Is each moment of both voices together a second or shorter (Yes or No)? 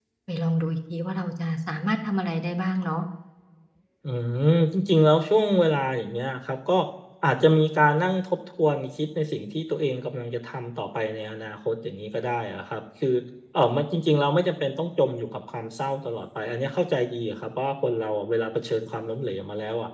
Yes